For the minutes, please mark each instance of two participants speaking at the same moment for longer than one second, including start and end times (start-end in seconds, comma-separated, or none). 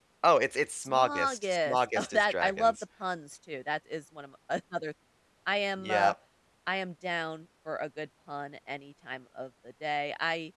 0.8-2.8